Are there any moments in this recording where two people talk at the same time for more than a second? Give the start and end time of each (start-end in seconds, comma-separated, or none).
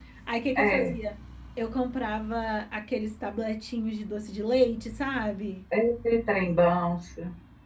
none